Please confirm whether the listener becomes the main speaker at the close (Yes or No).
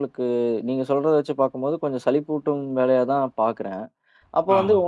No